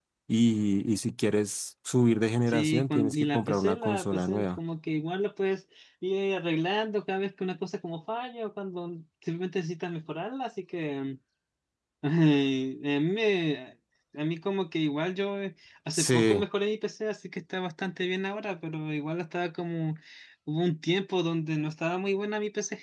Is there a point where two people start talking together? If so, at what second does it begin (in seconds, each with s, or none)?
2.5 s